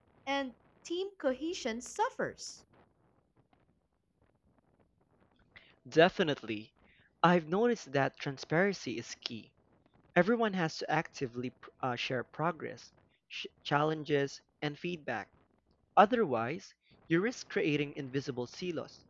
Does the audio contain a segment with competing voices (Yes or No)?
No